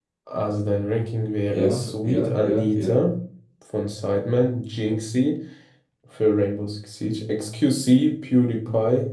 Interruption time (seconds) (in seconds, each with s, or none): 1.5 s